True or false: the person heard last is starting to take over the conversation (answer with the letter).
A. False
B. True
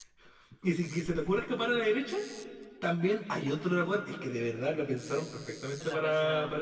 A